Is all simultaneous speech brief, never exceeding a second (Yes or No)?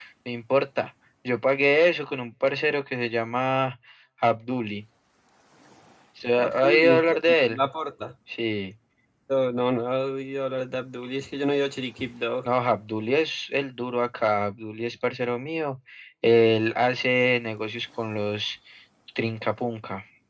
No